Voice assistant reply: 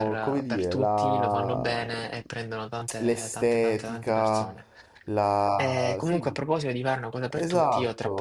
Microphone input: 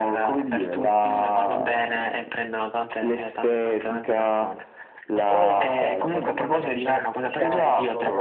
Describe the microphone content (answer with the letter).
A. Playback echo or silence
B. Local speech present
B